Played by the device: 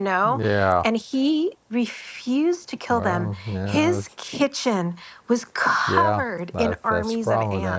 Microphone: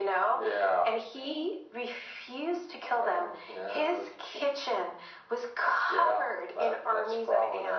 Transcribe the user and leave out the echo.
none

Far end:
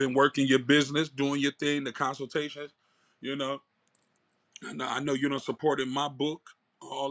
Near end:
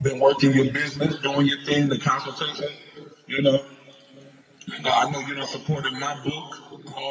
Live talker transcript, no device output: none

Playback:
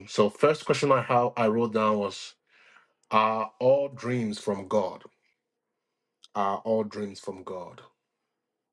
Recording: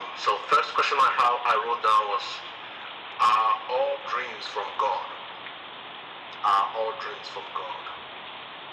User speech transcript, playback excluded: none

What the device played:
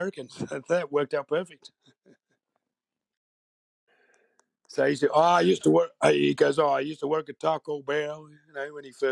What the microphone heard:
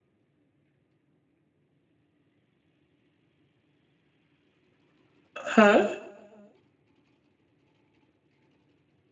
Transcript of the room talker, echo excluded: Huh?

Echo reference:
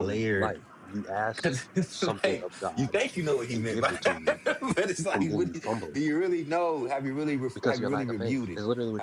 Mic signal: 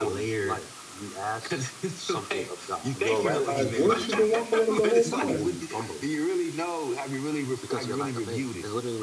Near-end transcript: your rabbi's voice. You've been walking with him the whole time.

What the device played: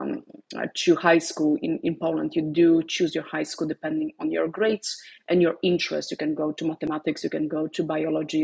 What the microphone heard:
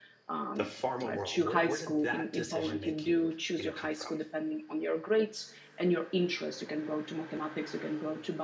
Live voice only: the pharma world. Where where did that decision making, you know, come from?

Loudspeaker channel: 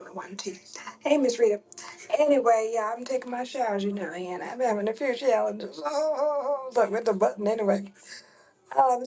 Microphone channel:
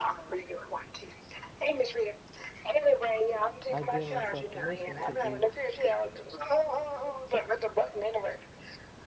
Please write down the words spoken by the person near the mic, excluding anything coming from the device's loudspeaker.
I give myself permission to be

